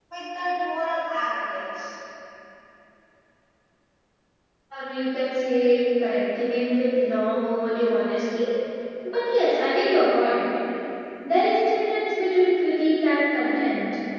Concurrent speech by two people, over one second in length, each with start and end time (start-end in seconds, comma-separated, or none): none